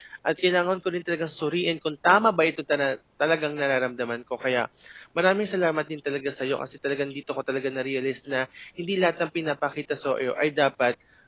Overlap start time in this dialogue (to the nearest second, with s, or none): none